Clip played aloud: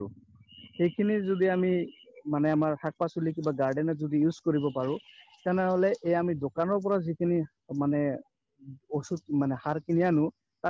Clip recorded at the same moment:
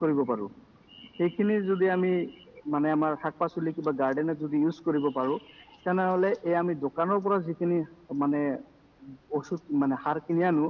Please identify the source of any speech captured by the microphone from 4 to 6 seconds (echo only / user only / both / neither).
echo only